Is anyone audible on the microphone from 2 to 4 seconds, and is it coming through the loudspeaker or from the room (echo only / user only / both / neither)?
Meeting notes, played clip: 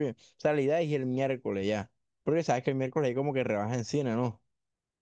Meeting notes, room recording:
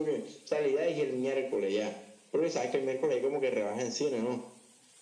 echo only